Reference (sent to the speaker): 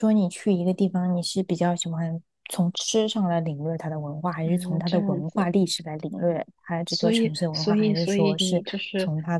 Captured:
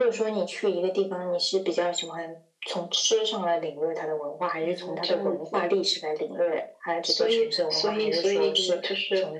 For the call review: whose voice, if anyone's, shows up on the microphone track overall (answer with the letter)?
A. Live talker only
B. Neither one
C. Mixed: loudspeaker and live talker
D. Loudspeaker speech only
D